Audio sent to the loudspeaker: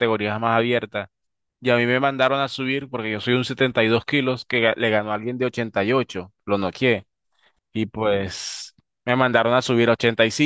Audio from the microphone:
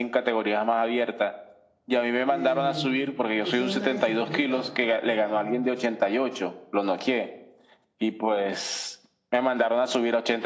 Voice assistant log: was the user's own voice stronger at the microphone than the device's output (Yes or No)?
No